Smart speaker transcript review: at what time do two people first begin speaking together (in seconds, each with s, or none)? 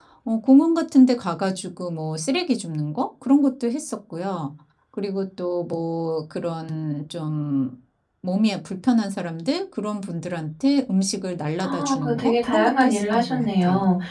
11.6 s